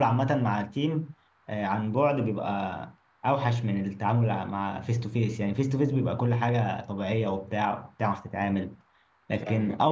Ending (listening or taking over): listening